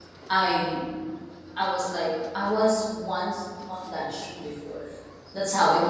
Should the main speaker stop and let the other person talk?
No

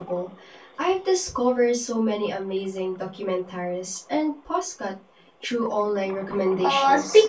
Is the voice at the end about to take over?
Yes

